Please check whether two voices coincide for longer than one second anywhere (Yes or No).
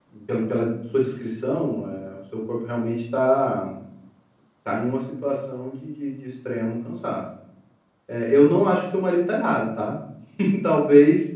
No